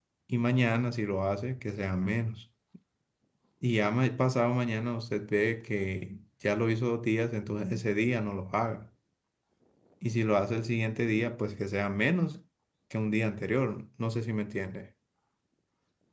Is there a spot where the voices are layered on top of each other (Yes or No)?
No